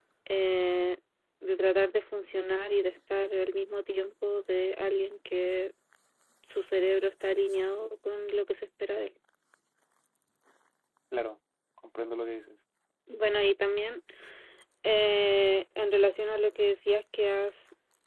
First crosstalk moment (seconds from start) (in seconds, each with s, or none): none